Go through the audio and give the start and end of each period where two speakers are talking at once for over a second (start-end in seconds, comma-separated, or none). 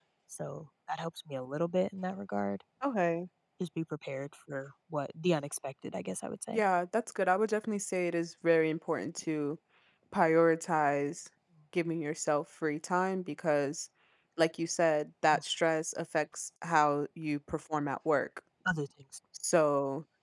none